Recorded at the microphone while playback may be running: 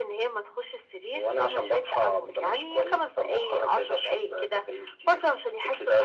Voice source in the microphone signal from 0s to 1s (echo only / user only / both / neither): echo only